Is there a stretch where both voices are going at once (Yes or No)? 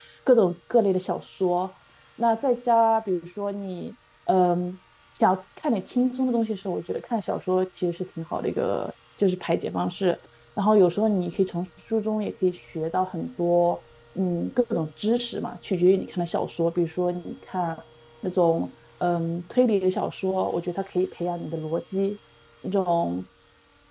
No